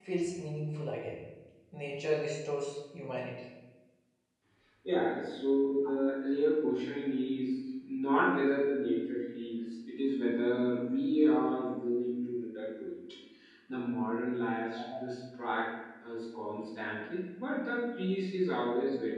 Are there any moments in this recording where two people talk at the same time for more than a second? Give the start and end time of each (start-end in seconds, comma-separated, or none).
none